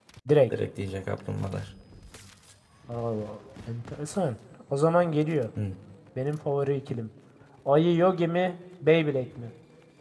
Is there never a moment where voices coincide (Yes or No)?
Yes